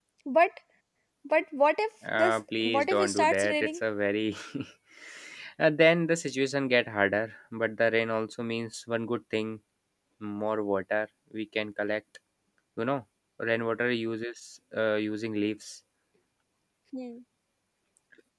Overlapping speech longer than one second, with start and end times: 2.2-3.8

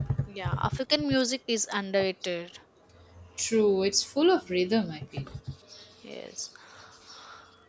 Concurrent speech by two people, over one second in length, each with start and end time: none

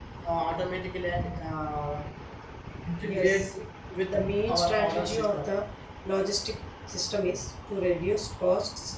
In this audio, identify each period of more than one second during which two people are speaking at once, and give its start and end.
4.1-5.5

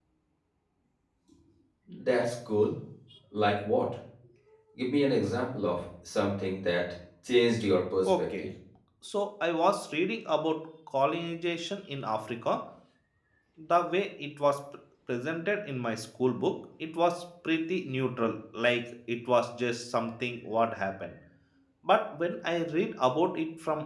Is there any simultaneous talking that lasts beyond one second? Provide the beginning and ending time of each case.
none

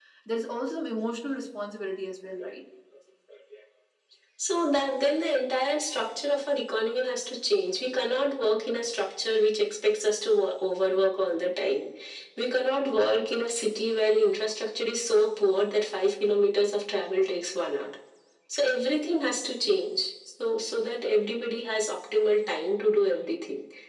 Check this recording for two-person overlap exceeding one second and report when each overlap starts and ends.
none

